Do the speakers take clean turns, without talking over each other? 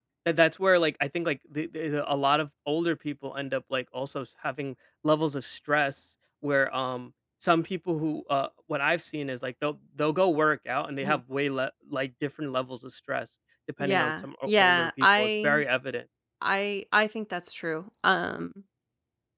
No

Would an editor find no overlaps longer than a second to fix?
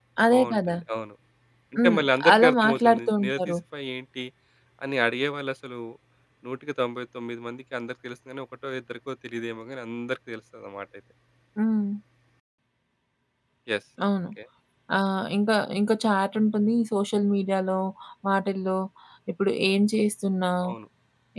No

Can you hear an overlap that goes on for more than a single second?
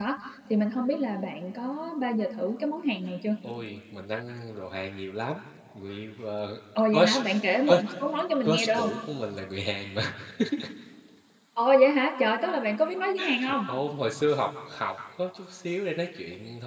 No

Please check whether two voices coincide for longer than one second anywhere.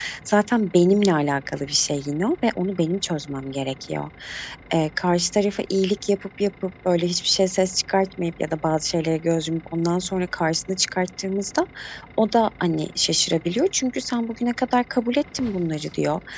No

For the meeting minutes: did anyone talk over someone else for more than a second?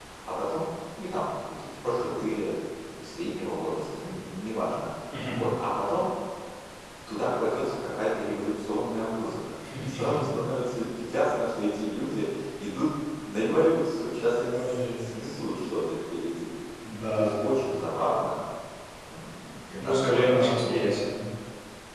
Yes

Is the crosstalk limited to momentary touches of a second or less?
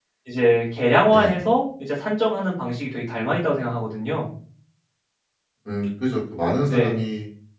Yes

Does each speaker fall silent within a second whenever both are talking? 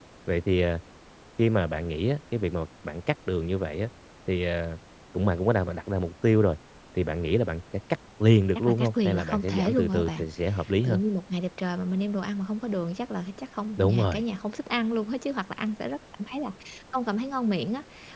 No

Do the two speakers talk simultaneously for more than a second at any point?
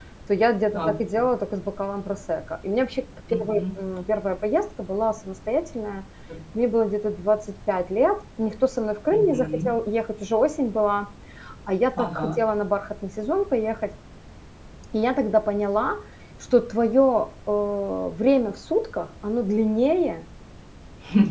No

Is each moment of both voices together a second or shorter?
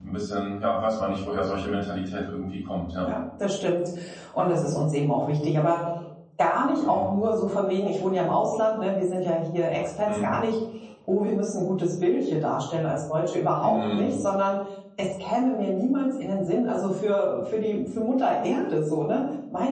Yes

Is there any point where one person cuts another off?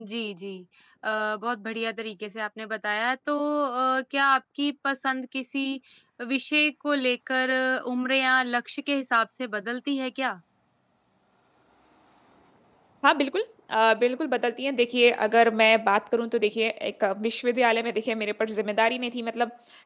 No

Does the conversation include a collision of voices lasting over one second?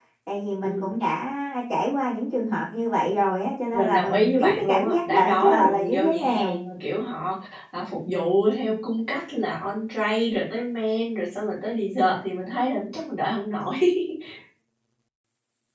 Yes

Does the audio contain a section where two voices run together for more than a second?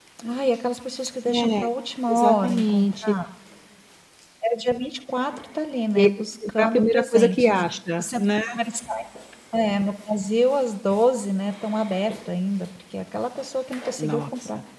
Yes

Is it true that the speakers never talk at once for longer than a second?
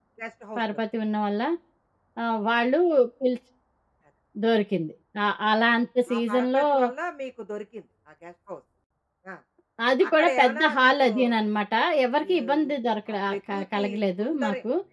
No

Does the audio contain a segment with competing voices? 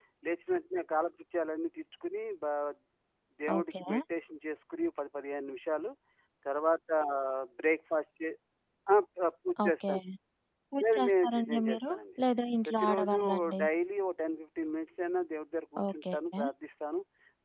Yes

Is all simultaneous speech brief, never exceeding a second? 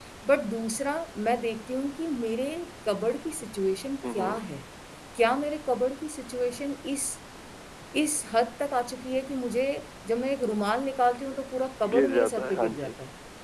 No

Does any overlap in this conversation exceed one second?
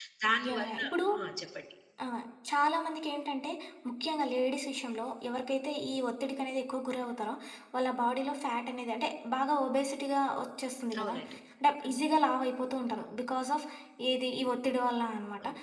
No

